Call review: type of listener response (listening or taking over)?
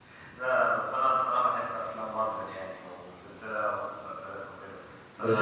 taking over